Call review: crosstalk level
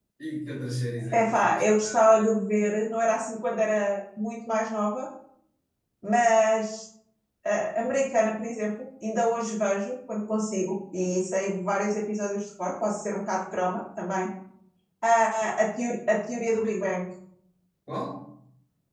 present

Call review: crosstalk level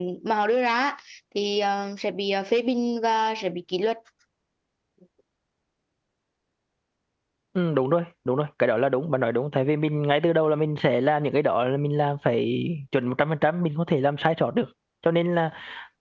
none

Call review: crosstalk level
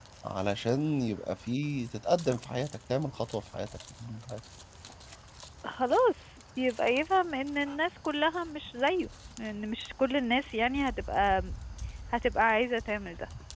none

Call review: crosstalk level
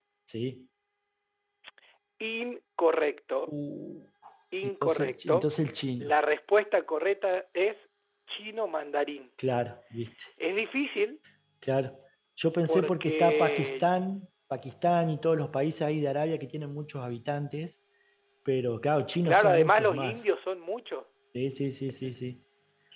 present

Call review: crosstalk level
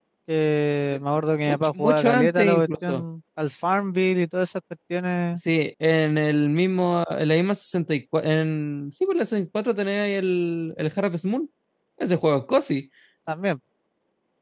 present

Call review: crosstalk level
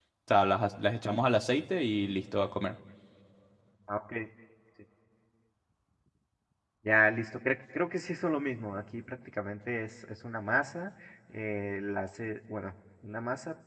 none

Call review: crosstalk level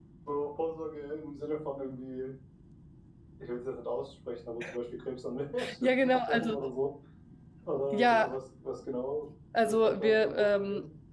present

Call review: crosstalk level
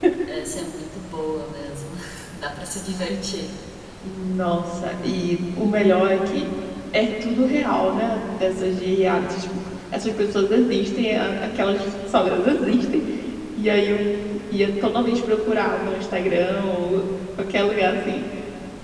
none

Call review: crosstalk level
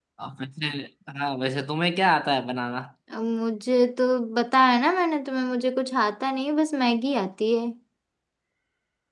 none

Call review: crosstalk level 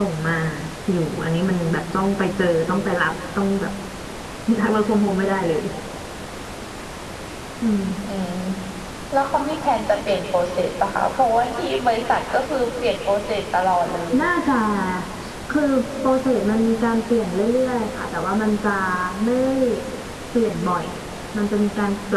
none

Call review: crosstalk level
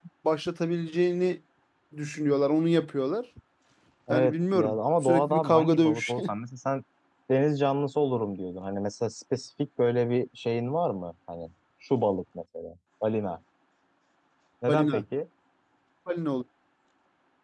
present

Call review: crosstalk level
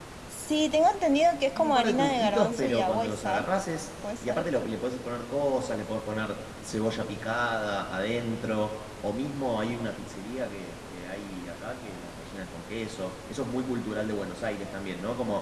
present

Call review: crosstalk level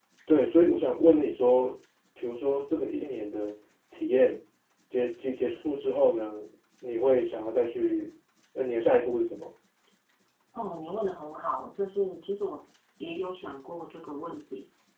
none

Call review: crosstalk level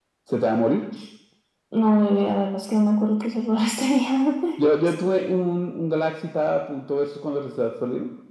none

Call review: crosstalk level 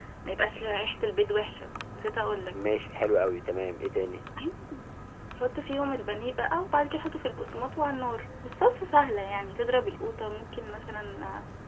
none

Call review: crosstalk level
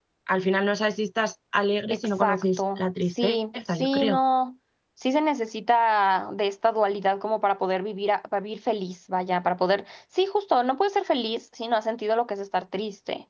present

